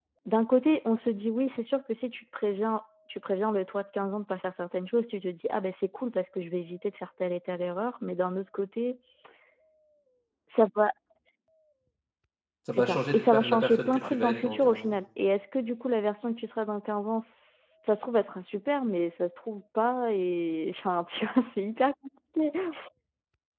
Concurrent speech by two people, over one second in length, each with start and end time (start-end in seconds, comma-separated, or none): 12.7-14.9